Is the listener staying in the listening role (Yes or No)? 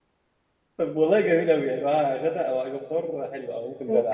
No